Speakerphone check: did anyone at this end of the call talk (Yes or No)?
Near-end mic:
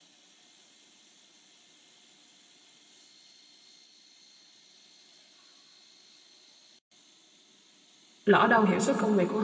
Yes